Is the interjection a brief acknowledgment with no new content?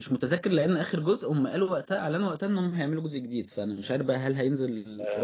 No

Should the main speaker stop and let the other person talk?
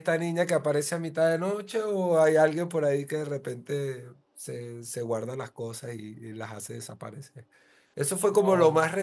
No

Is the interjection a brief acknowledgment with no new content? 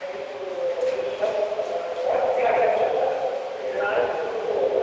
Yes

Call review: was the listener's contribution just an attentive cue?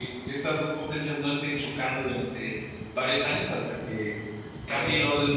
Yes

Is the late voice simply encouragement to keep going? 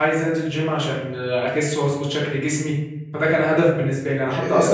Yes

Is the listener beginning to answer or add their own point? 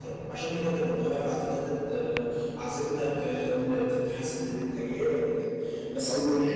No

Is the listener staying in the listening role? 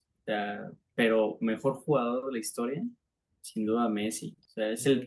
Yes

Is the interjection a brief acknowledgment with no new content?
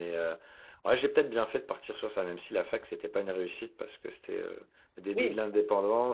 Yes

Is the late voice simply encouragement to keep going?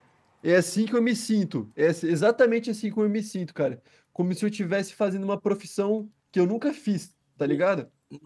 No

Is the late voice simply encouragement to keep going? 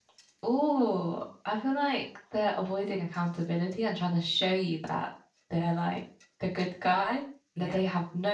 Yes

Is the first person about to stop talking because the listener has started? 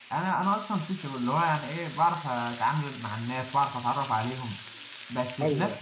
No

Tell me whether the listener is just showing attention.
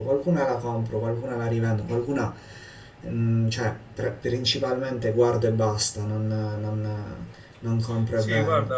No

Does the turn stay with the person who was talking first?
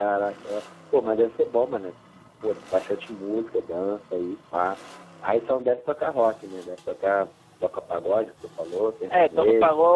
No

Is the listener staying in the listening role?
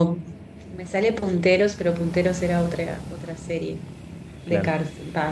Yes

